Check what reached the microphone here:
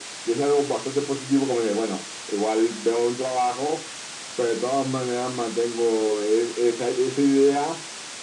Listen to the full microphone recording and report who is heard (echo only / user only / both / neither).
echo only